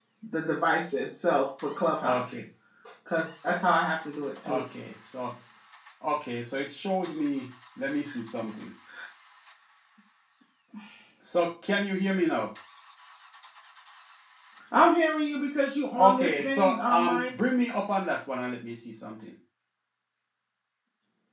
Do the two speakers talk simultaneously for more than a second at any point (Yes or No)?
Yes